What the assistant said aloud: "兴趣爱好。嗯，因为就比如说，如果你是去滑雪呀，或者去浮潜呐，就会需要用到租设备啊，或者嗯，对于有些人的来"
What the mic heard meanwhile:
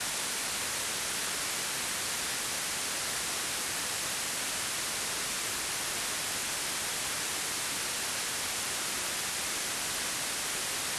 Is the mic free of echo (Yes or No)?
Yes